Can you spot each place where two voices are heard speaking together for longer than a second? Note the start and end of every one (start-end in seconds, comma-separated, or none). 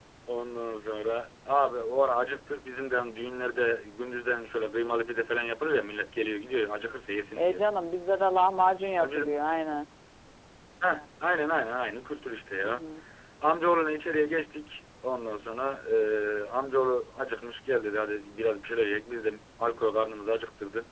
none